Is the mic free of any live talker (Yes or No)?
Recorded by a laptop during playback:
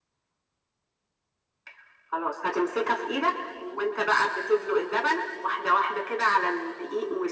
Yes